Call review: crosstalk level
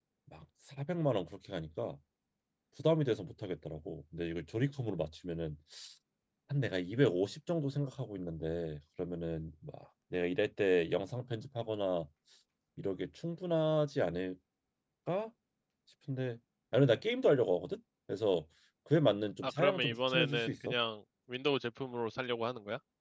present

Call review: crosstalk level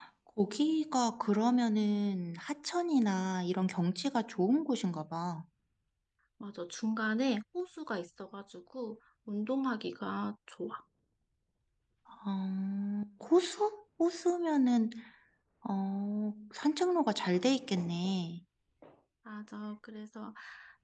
none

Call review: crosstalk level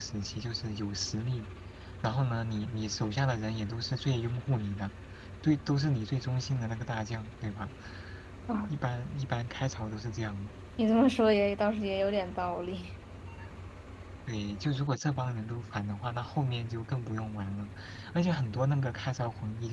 none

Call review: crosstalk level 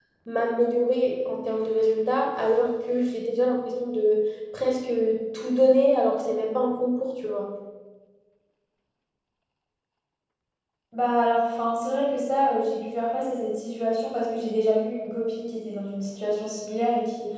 none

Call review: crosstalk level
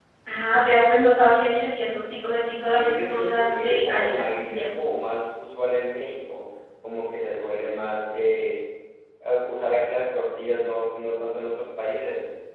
present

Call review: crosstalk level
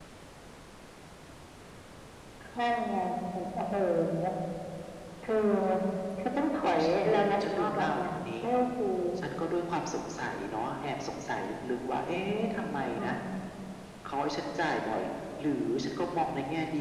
present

